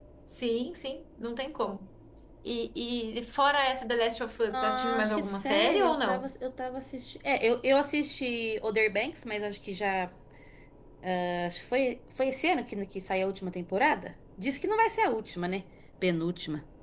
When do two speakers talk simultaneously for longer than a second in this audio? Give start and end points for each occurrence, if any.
4.5-6.3

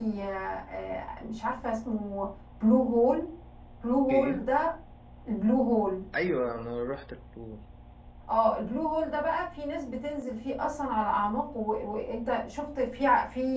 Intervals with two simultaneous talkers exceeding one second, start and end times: none

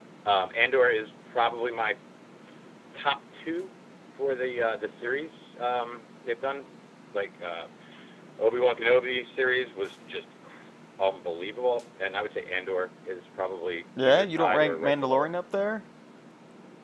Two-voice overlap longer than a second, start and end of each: 14.0-15.3

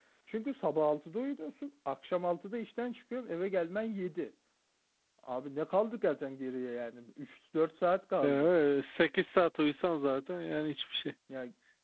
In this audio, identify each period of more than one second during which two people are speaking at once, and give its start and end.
none

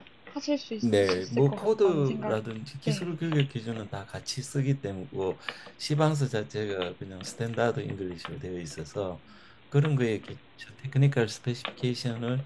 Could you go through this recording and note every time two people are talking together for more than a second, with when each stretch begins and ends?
0.8-2.4

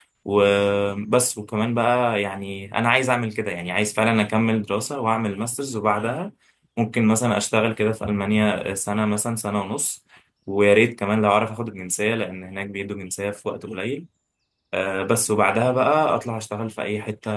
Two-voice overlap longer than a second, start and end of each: none

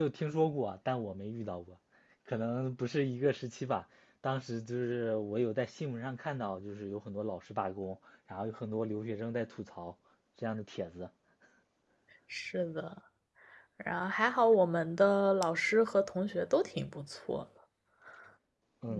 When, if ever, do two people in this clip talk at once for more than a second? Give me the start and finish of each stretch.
none

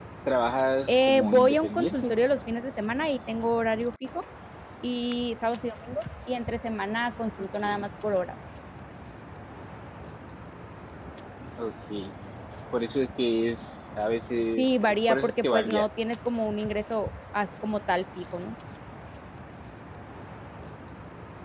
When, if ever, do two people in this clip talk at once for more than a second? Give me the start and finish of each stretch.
0.9-2.1, 14.6-15.9

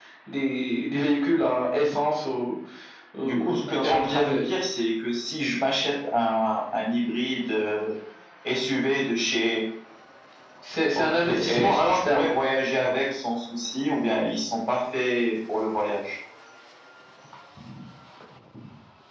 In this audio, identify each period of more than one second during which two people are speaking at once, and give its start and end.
3.2-4.4, 10.9-12.3

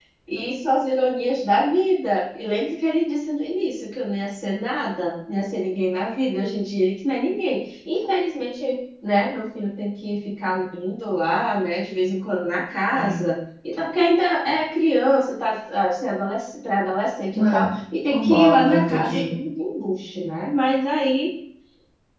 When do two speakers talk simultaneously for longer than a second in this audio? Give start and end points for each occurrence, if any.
18.1-19.3

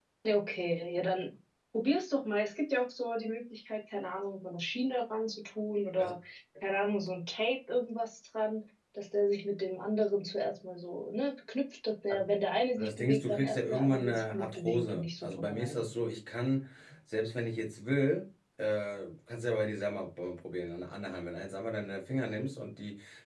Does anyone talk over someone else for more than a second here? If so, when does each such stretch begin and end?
12.8-15.8

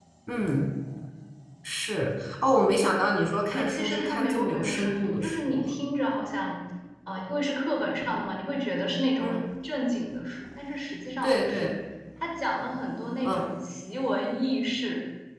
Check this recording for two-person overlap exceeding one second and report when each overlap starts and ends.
3.5-5.6

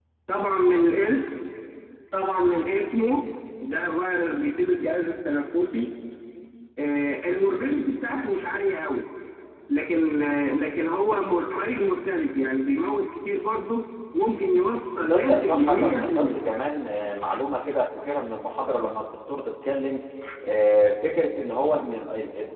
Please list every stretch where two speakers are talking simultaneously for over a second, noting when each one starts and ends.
15.1-16.5

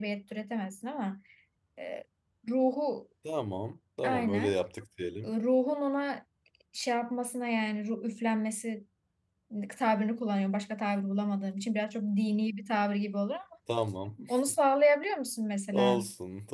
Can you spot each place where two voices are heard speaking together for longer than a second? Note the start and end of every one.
none

